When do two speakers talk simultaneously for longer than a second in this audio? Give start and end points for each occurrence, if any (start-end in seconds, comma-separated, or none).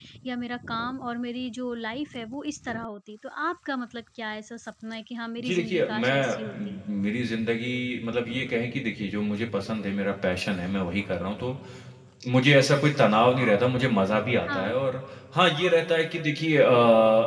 5.5-6.8